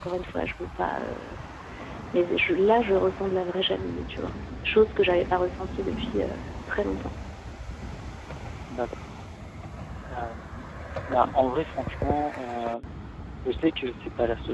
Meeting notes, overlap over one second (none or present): none